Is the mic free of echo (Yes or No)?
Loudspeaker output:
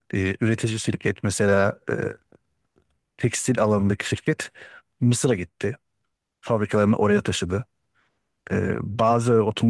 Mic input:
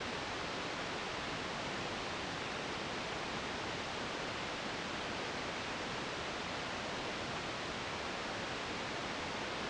Yes